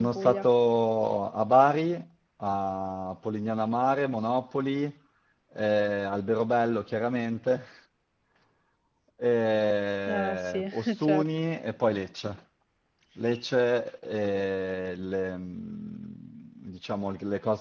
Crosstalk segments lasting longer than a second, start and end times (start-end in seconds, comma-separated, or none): 10.1-11.3